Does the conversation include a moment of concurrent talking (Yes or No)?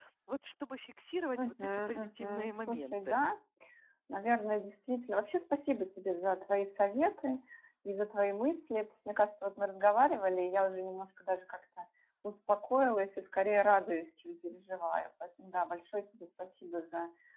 Yes